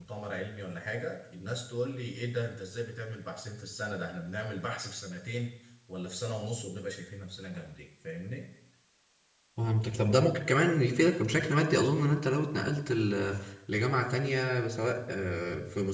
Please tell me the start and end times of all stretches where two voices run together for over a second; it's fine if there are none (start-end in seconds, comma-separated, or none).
none